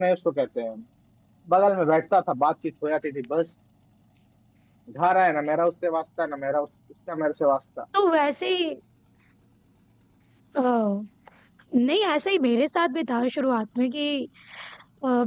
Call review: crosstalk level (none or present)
none